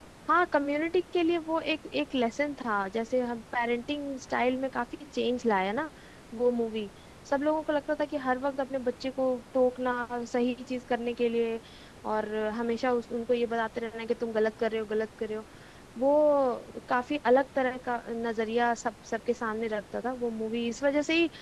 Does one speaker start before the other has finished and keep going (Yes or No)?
No